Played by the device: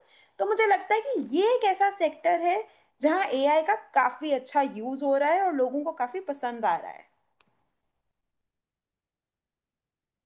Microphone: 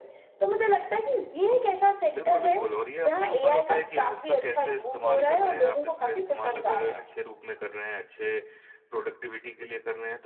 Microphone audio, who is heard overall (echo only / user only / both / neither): both